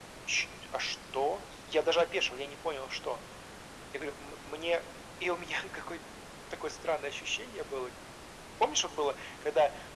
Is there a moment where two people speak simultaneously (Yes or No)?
No